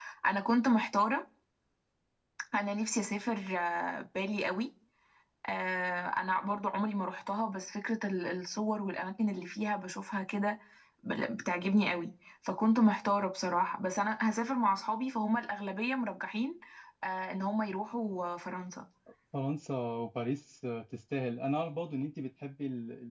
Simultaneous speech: No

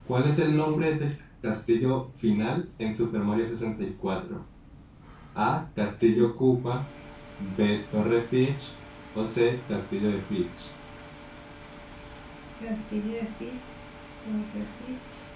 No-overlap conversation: Yes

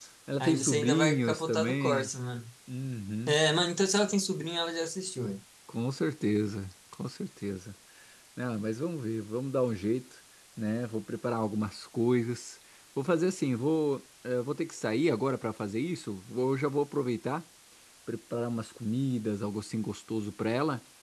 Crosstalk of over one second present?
Yes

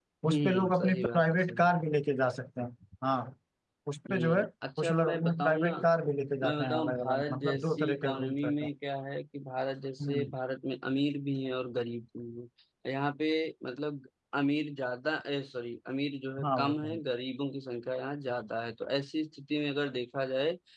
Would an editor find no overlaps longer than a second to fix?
No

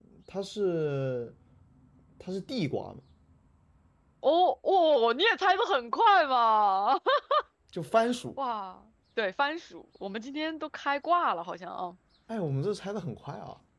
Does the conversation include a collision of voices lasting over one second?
No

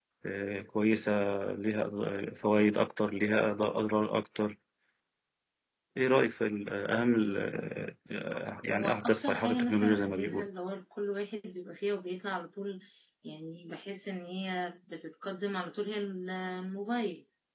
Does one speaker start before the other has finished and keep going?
Yes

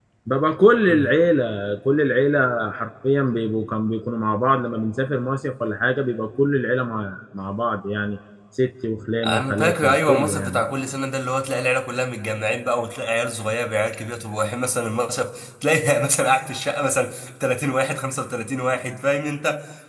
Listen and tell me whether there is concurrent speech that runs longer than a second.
Yes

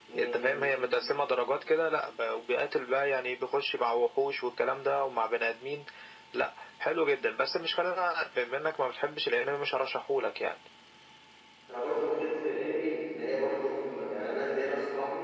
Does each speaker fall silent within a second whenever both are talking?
Yes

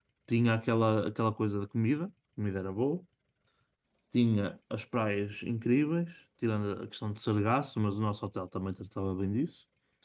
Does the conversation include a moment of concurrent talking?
No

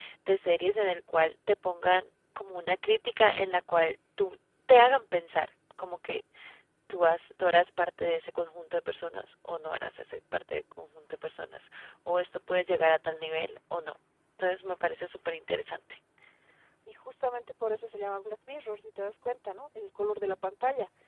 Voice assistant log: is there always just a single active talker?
Yes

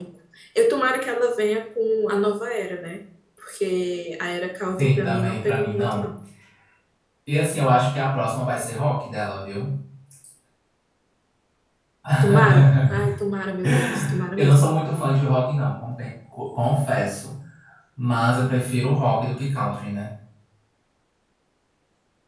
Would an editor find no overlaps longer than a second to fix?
No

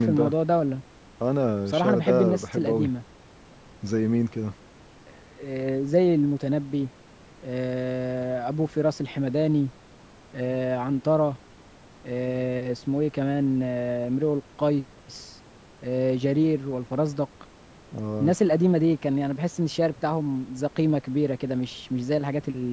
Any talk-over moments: Yes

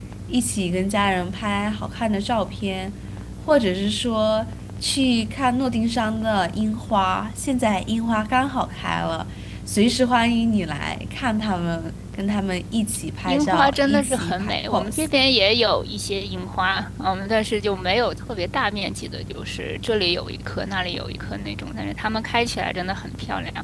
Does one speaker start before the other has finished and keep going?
Yes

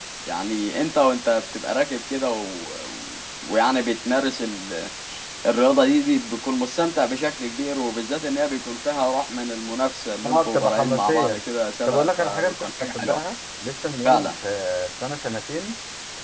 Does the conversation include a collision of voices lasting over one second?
Yes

